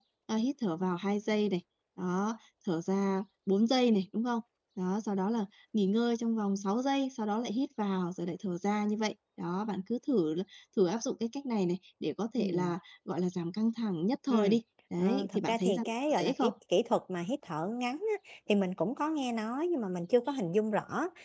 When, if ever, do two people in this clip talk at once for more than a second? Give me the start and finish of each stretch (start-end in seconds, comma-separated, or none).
15.0-16.5